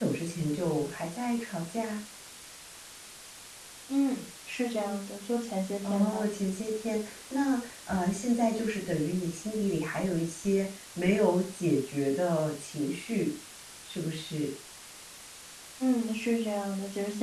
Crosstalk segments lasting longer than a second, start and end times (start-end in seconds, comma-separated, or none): none